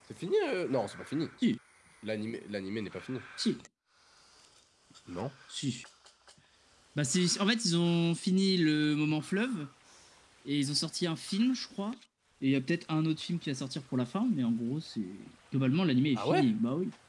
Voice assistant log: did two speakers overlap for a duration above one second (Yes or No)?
No